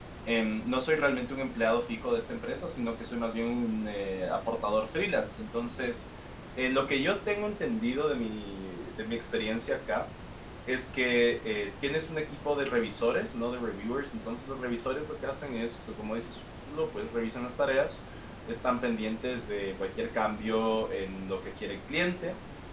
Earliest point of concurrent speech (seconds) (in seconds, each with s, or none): none